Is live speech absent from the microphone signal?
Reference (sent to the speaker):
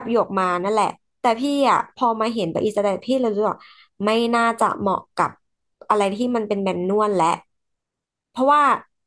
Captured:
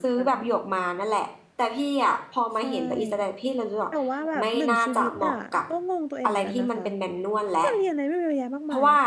No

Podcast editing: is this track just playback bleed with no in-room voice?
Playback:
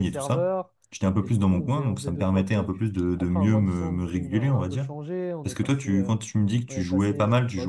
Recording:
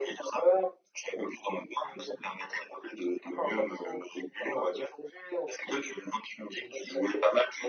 Yes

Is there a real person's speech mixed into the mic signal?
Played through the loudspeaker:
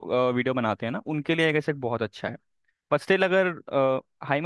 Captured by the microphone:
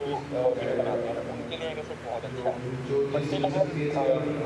Yes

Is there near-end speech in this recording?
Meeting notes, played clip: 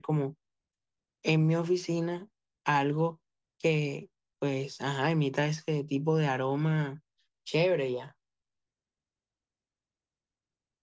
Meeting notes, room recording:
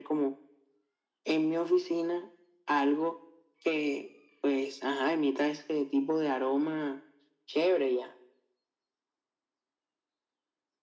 No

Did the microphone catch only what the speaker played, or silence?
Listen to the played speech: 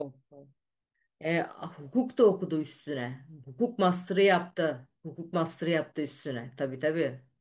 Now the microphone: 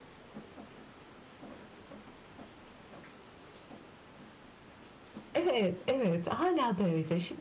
No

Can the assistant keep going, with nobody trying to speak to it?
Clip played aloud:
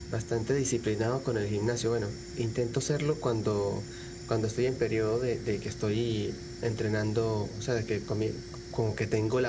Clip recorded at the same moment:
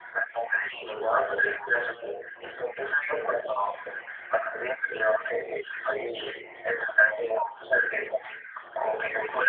Yes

